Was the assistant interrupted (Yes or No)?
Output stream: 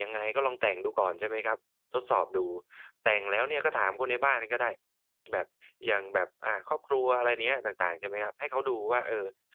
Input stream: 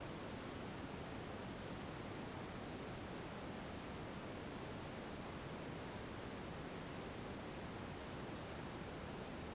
No